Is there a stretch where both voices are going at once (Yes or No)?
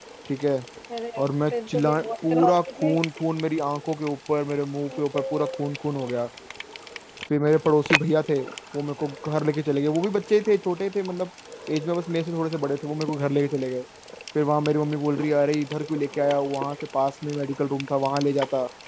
Yes